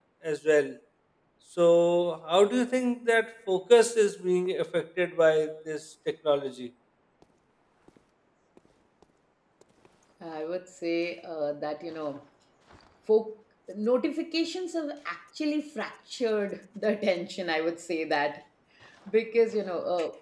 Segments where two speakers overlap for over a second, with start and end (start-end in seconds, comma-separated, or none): none